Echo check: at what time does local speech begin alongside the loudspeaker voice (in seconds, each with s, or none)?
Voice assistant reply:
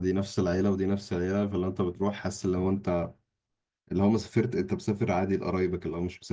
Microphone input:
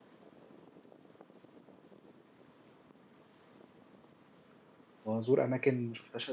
5.0 s